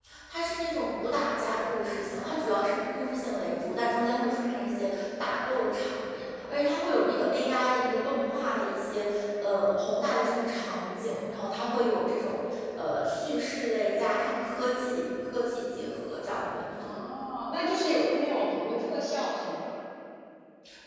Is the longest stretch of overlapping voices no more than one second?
Yes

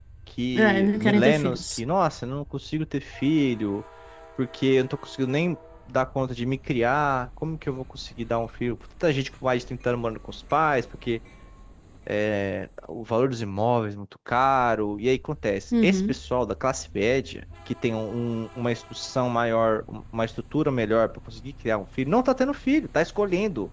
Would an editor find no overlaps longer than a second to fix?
No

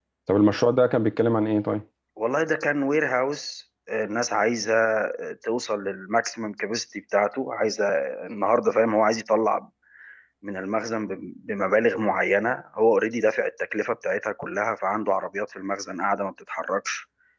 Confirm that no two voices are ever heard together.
Yes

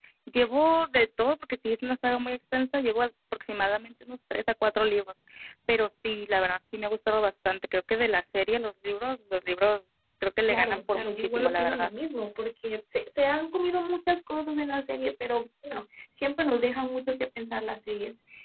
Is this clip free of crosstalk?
No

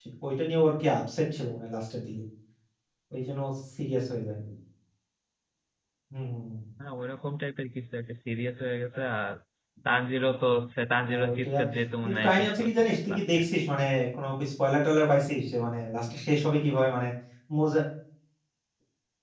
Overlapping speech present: Yes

